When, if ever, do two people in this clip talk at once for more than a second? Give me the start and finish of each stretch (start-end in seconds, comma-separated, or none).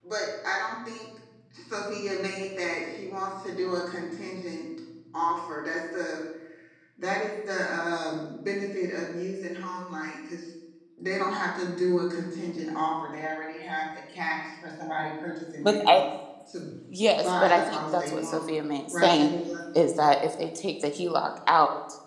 17.2-18.4